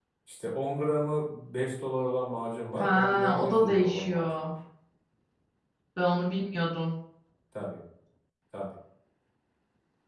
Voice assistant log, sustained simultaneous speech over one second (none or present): present